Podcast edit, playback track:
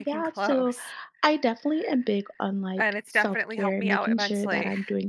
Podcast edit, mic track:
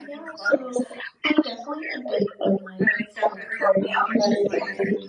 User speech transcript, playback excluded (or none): none